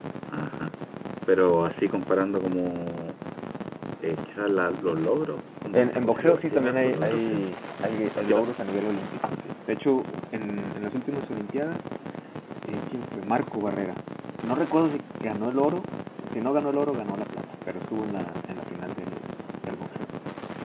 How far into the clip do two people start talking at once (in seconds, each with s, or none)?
5.7 s